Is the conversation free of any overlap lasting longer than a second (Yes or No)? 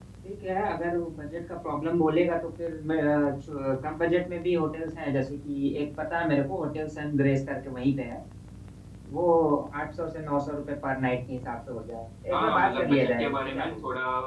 No